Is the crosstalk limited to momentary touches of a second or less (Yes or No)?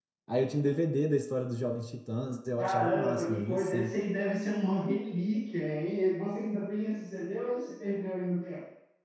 No